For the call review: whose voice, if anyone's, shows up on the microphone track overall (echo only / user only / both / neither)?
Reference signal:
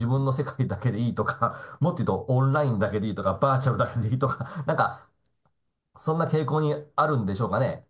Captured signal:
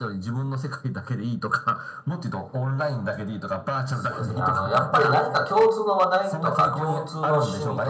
both